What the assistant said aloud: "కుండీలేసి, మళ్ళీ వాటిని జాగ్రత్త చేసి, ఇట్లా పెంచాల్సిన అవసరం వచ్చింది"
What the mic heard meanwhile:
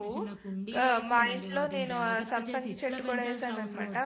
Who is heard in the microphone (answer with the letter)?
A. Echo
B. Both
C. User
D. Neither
B